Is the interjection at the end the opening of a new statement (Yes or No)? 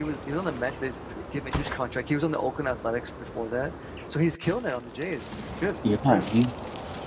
Yes